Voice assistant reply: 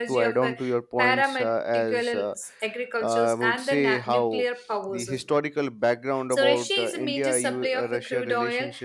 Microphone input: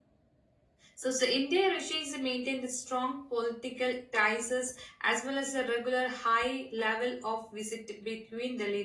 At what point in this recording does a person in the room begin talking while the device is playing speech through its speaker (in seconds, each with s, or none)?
0.9 s